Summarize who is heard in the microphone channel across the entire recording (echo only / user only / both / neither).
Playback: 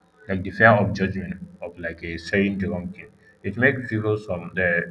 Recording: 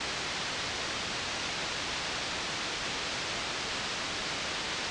neither